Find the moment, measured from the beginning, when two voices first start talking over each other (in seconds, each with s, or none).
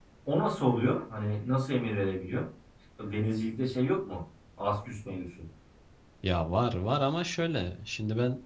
none